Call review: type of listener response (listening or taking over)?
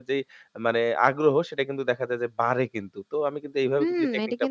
taking over